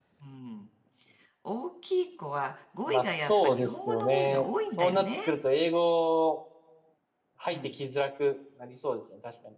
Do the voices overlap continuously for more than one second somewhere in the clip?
Yes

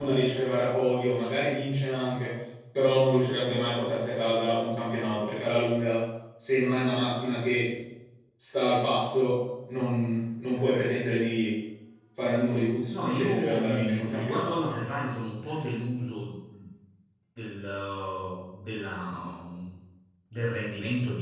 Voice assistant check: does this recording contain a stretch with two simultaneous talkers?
Yes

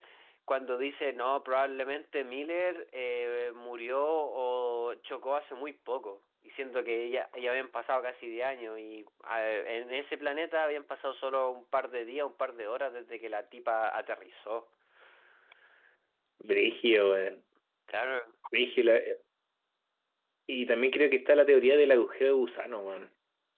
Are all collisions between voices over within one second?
Yes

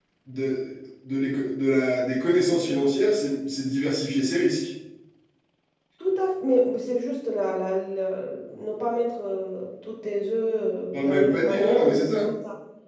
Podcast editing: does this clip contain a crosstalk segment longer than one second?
Yes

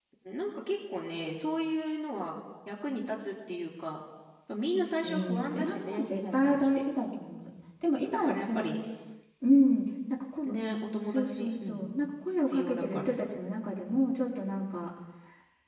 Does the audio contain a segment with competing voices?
Yes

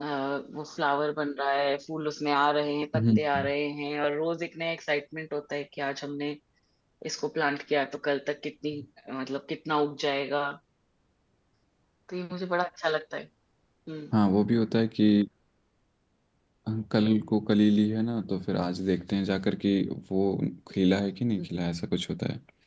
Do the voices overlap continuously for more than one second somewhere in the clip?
No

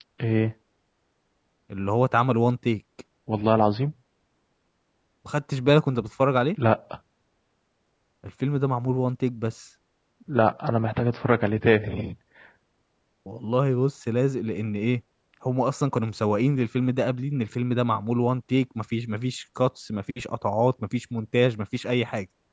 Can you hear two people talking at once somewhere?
No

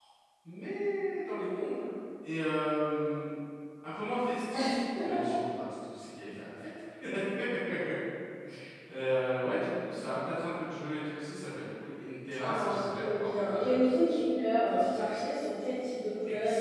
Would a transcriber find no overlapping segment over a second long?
No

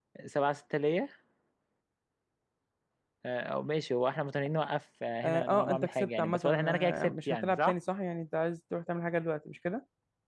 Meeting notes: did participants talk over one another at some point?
Yes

